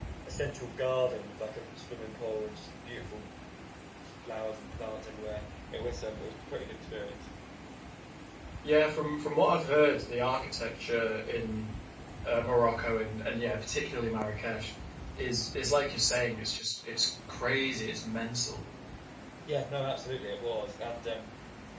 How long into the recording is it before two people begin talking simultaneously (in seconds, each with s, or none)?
none